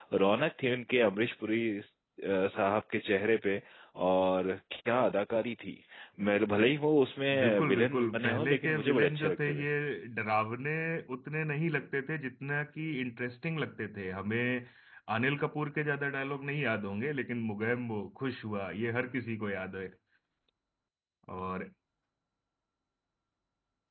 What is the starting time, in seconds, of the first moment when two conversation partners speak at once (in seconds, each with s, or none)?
7.3 s